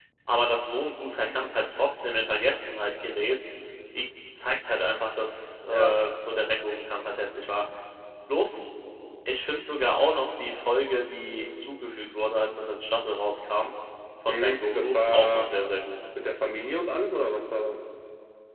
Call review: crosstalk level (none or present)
present